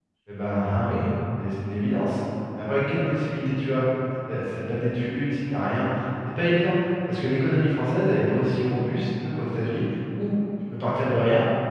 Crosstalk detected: No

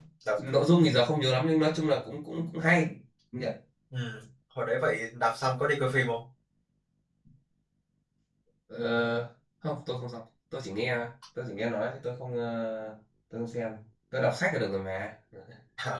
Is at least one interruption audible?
No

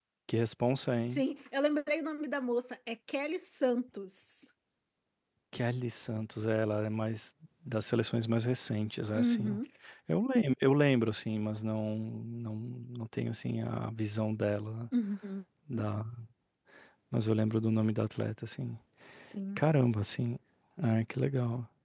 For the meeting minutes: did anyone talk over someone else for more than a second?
No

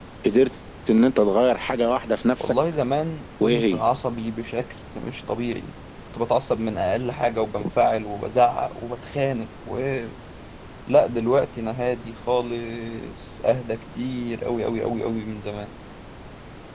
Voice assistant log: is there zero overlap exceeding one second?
Yes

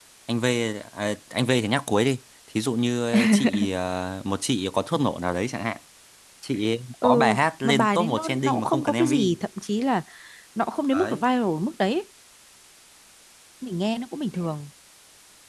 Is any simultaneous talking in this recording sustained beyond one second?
Yes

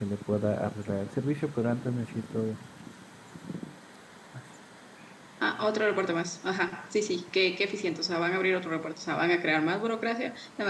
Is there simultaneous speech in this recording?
No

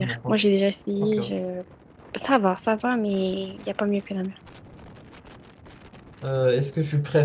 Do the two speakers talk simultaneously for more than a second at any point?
No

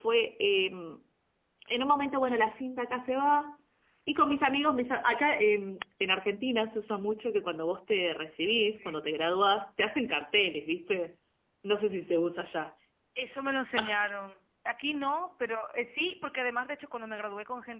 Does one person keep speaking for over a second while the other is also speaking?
No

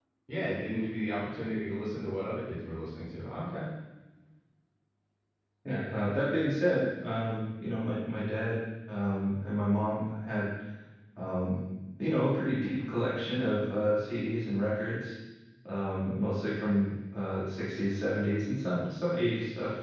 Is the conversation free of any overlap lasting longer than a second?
Yes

